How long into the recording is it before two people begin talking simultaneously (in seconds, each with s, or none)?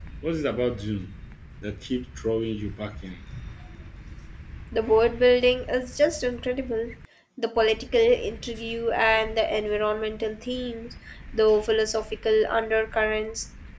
none